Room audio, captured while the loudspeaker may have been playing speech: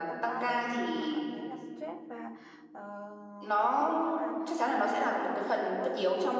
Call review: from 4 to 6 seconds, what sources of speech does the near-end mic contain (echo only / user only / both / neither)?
both